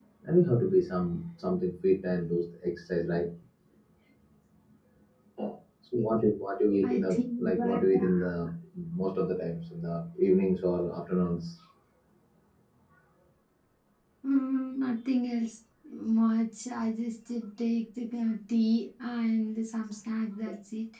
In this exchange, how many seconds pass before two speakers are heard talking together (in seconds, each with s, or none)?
6.8 s